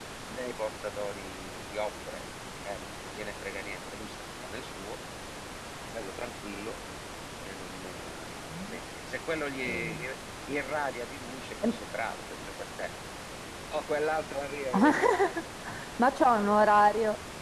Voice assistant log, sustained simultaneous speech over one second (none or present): none